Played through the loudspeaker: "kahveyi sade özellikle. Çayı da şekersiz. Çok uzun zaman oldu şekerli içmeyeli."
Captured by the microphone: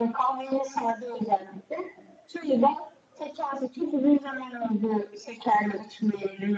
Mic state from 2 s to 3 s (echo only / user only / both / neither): echo only